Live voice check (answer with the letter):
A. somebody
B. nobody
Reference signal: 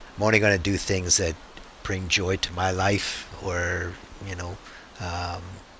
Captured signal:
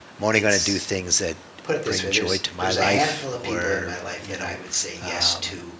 A